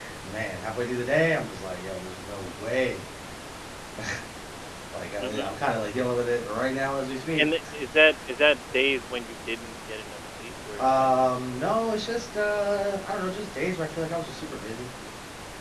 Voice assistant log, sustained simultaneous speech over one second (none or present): none